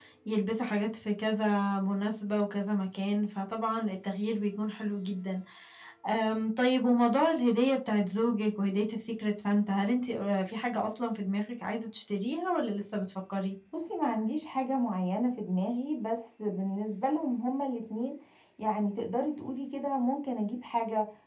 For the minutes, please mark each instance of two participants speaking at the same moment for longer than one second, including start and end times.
none

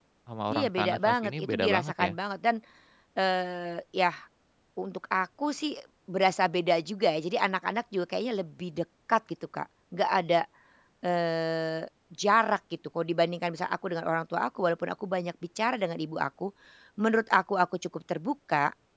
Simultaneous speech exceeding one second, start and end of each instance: 0.5-2.1

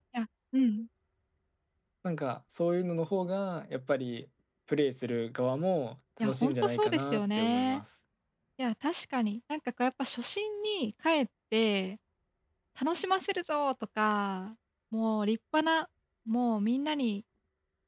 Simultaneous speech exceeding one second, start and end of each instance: 6.2-7.8

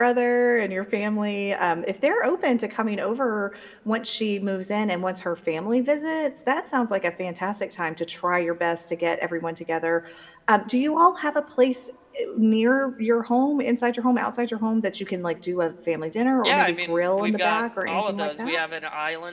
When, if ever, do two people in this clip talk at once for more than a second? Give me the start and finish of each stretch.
16.4-18.6

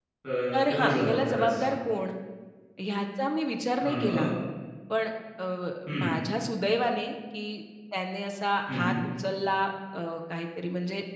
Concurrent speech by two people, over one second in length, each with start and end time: 0.5-1.8

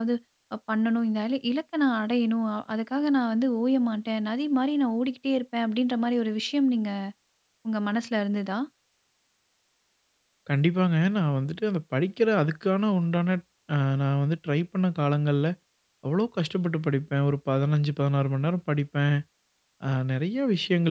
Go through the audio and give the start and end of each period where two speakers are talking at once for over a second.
none

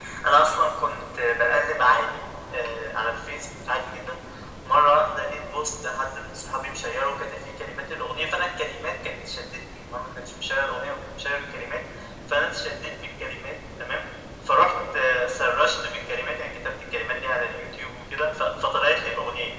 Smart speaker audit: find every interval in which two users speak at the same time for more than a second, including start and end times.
none

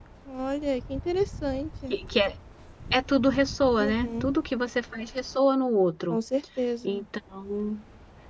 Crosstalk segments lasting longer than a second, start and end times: none

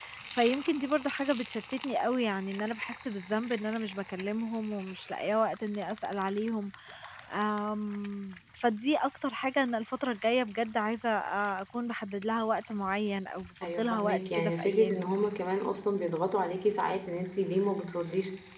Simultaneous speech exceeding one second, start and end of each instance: 13.6-15.1

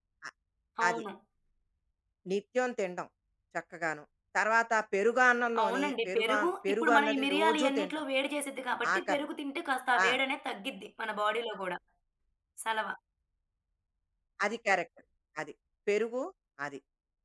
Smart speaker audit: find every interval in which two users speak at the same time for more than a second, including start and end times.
5.6-7.9

